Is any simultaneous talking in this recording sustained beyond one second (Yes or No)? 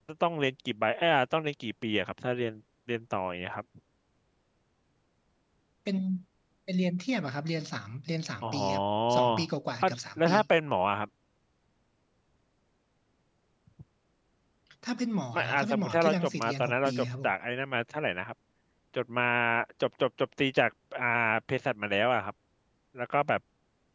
Yes